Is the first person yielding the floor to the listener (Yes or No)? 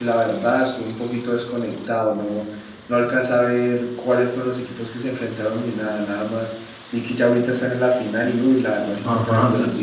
Yes